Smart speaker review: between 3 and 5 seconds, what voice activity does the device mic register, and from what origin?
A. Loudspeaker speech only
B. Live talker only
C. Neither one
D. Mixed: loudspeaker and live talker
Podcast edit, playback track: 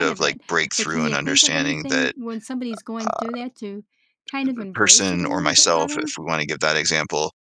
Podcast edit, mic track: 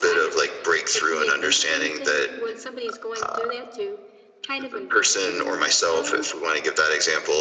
A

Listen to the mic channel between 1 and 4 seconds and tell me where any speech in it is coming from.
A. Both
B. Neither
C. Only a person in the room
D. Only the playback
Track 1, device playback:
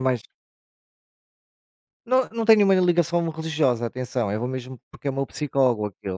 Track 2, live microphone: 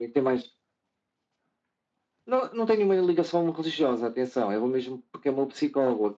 D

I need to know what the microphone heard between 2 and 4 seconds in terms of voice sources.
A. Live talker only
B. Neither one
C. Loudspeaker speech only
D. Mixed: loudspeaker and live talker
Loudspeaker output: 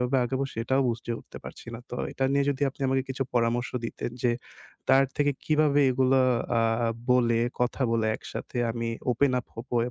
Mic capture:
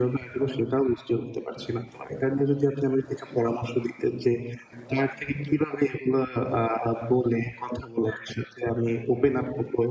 C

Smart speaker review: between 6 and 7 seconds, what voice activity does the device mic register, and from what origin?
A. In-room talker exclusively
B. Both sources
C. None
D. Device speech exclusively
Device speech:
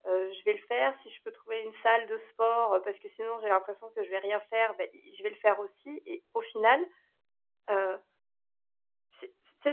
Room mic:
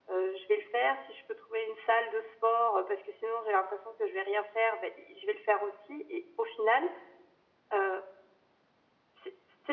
D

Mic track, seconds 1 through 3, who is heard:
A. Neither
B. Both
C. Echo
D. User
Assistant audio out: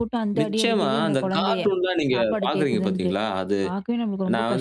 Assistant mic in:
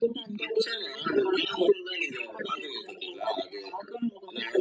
C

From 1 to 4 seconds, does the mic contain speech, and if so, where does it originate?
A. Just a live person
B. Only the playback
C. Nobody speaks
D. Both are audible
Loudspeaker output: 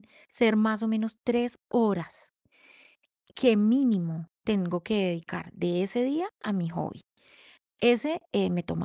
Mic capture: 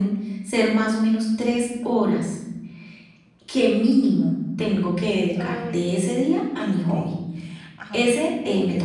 B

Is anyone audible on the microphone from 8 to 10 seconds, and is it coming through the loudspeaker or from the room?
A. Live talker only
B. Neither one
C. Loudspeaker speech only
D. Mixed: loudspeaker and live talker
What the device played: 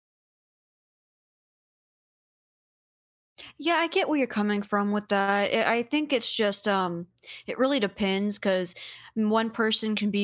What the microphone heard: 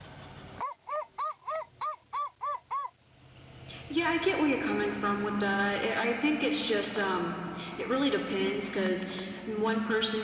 C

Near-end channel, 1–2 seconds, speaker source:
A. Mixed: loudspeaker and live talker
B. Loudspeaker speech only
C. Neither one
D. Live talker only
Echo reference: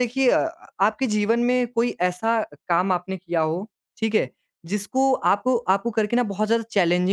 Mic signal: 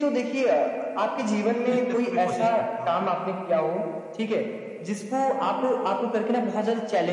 A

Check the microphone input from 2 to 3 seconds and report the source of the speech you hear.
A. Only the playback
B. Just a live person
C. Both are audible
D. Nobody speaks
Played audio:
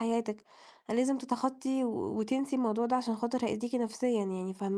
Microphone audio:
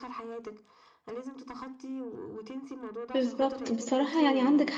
A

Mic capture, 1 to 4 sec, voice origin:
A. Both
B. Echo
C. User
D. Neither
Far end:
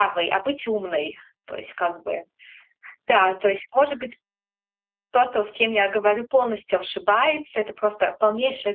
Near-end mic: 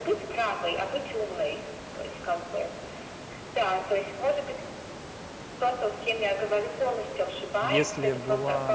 B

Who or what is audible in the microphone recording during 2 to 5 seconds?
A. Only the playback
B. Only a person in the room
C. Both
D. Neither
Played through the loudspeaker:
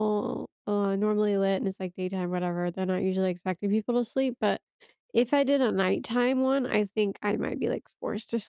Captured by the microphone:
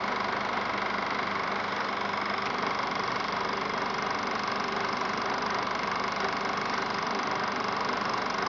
D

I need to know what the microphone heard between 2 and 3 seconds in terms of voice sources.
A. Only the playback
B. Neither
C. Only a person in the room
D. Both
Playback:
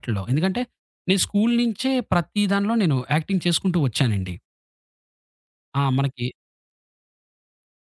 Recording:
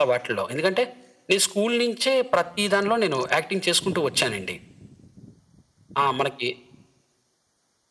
A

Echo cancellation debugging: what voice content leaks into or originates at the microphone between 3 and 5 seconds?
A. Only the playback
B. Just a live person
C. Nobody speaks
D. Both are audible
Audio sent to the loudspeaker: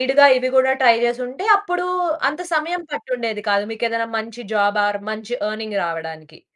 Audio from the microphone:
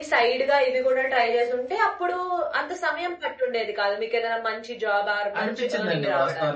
A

